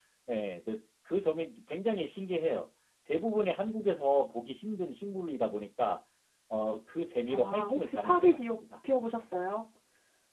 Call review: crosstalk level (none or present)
present